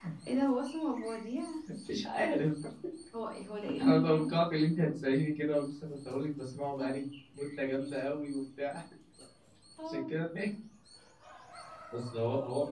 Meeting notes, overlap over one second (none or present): none